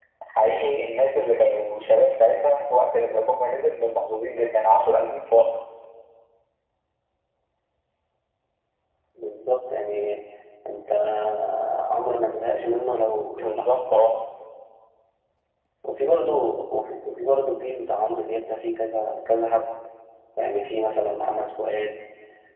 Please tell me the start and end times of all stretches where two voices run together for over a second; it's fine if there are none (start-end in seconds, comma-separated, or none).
none